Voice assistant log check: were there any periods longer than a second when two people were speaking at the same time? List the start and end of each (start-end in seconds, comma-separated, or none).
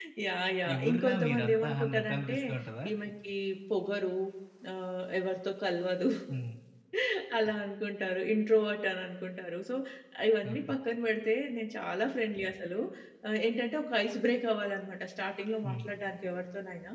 0.8-2.4